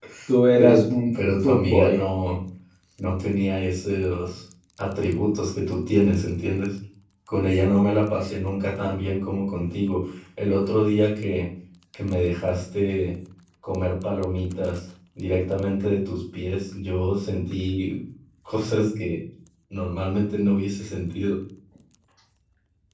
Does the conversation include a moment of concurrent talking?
Yes, from 0.6 s

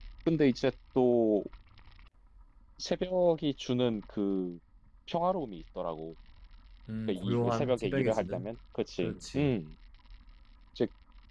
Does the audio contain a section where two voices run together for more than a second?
Yes, from 7.1 s

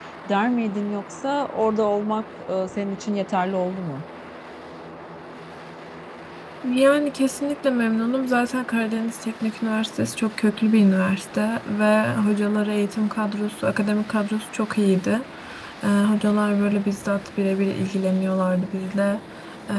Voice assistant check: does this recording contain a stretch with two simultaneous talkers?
No

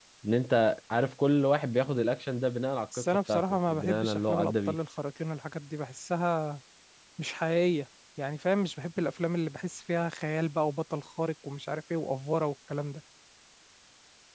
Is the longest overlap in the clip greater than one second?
Yes, from 2.9 s

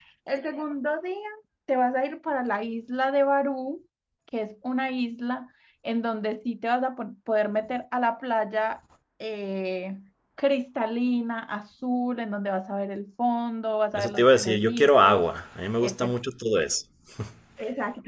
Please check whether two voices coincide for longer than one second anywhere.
Yes, from 14.0 s

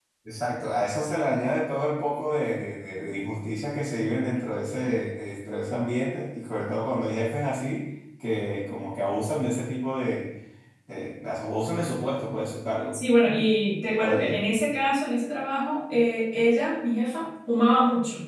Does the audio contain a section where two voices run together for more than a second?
No

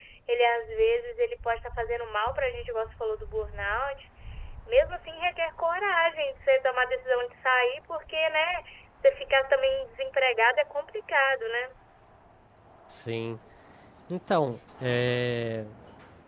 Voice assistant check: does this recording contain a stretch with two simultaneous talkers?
No

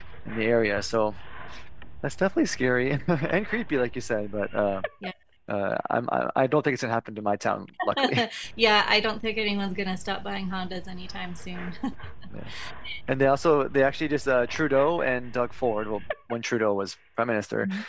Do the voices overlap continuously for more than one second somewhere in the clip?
No

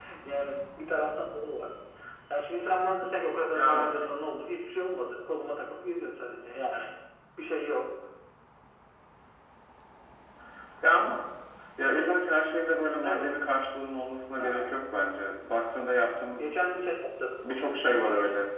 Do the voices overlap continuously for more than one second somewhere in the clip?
No

